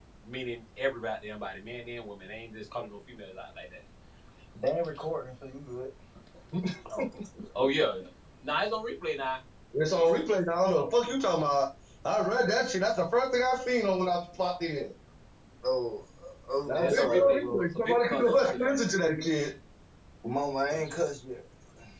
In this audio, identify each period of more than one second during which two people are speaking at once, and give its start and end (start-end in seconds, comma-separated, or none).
16.7-18.8